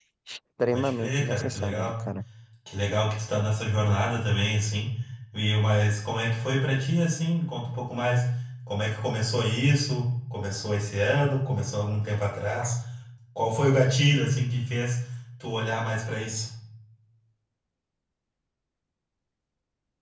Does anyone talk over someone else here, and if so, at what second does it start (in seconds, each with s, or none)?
0.7 s